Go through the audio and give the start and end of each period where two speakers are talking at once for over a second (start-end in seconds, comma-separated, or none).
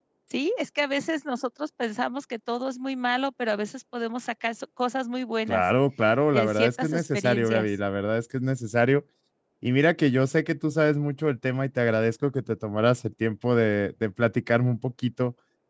6.3-7.7